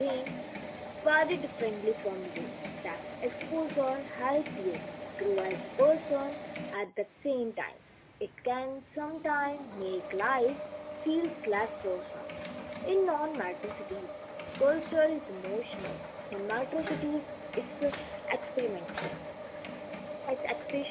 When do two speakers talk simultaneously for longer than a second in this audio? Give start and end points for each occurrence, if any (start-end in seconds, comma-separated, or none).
none